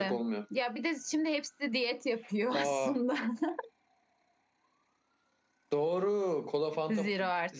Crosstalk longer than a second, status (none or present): none